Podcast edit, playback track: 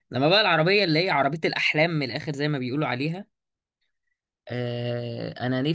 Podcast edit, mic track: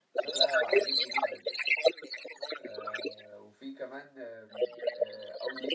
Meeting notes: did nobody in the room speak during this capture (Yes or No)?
No